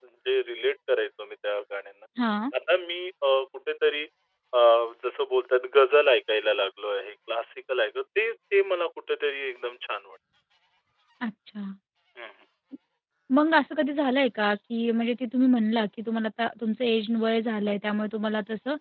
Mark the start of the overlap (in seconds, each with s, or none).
none